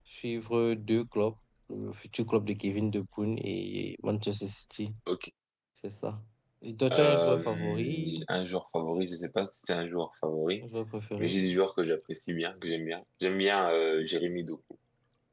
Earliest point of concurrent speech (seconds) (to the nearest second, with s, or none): 7 s